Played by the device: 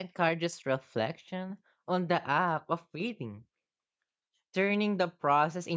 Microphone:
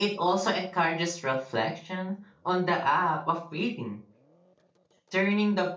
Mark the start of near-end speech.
none

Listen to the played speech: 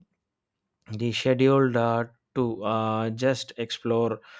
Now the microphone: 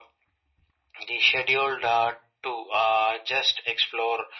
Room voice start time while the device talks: none

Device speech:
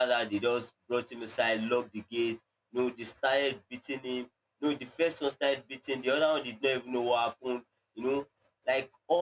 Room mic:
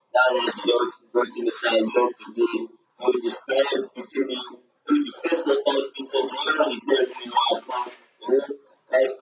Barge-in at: none

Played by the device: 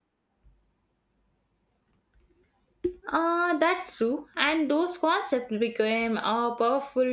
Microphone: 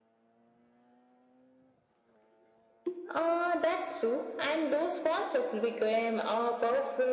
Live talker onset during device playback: none

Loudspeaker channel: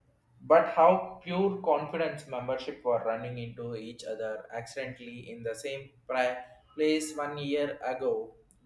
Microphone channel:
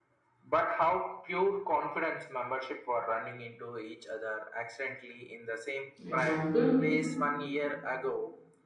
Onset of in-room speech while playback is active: 6.0 s

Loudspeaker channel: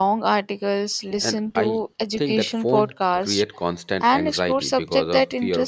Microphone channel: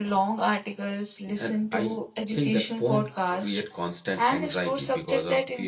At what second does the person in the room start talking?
none

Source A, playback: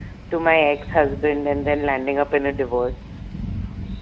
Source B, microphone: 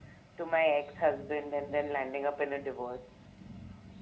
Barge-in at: none

